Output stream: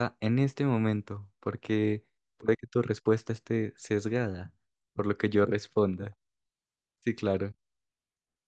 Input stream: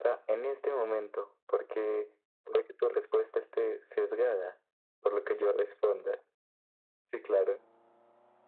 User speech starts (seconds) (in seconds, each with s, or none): none